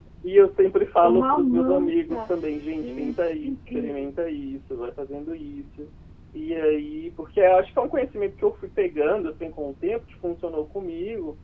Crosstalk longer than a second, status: present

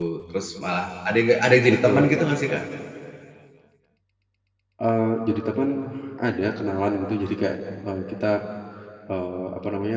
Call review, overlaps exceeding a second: none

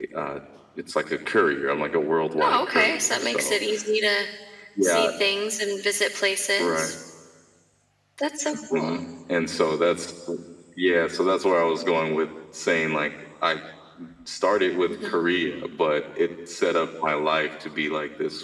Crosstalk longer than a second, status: present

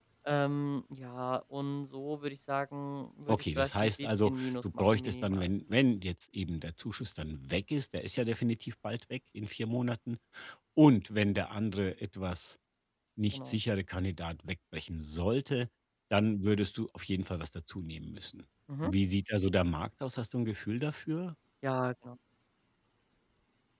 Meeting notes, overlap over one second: present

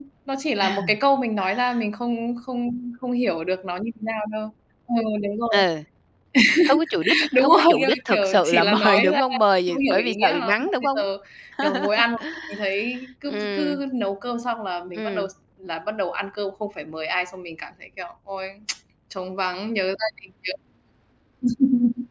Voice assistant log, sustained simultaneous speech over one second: present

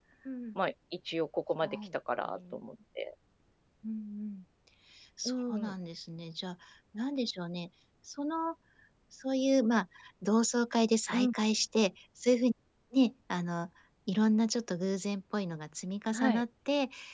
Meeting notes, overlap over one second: none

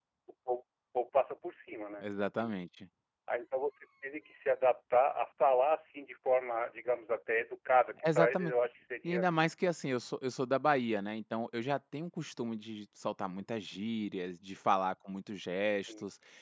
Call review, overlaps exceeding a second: none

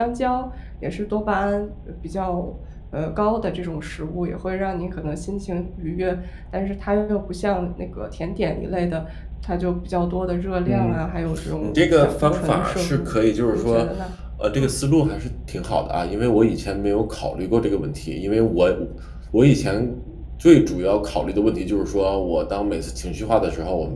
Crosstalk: present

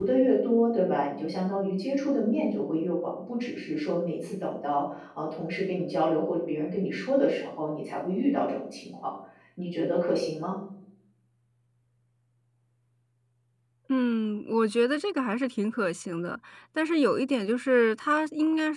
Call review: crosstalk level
none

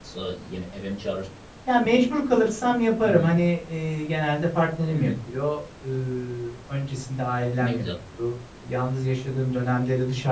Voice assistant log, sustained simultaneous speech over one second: none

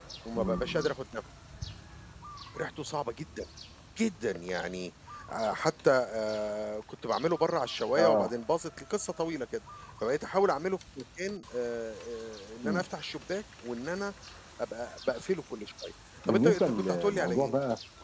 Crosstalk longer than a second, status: present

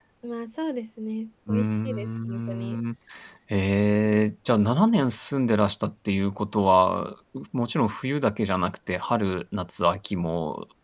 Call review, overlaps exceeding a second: present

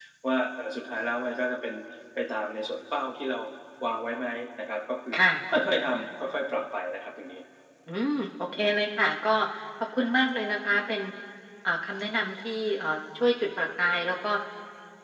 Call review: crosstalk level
none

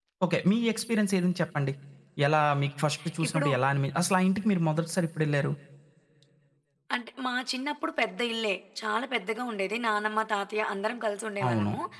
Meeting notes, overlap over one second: none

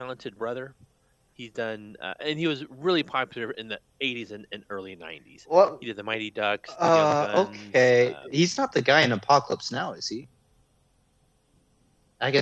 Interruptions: present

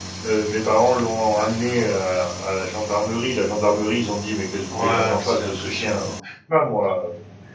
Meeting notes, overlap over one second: present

